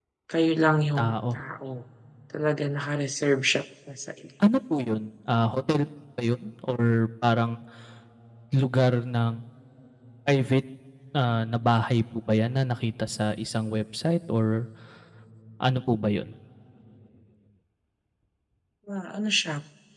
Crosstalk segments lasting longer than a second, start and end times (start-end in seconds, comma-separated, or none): none